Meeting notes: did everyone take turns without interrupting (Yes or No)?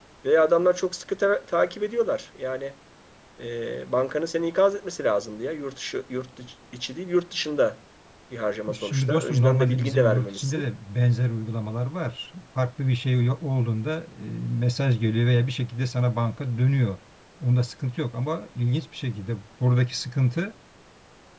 No